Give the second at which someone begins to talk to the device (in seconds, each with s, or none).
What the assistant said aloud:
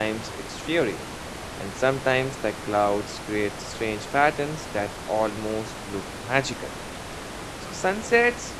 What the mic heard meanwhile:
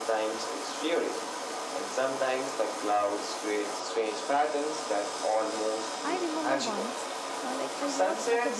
6.0 s